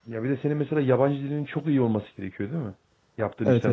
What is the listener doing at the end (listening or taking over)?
taking over